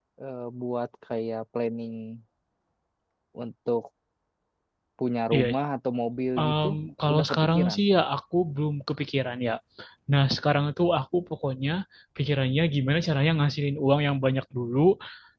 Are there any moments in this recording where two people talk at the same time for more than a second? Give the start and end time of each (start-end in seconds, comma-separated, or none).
6.4-7.8